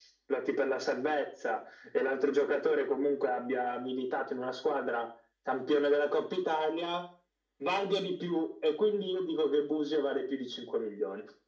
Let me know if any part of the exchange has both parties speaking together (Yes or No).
No